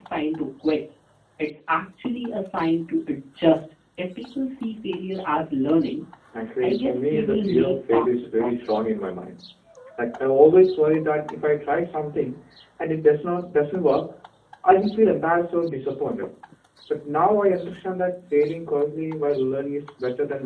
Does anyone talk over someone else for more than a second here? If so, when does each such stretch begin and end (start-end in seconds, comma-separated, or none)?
6.6-8.7